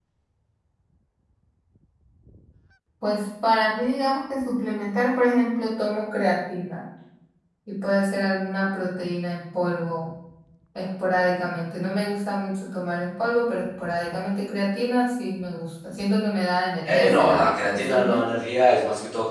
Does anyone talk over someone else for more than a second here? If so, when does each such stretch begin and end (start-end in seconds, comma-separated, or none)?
16.9-18.2